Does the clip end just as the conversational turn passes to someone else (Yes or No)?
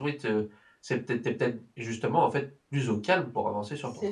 Yes